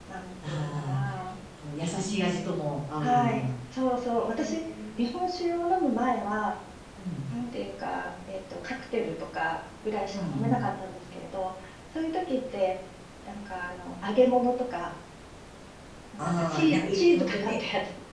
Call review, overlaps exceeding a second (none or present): present